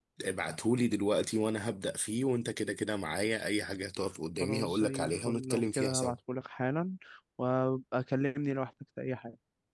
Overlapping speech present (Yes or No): Yes